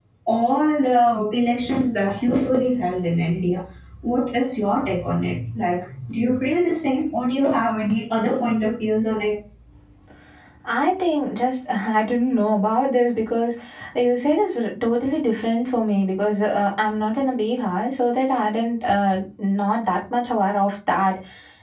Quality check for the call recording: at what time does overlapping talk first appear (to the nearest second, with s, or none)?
none